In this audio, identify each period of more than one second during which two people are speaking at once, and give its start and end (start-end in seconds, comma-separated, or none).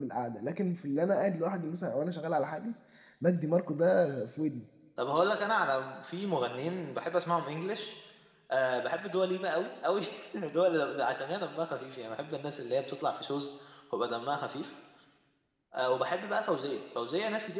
none